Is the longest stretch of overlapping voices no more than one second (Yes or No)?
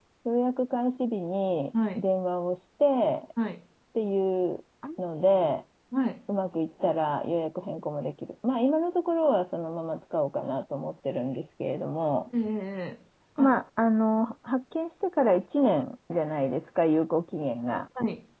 Yes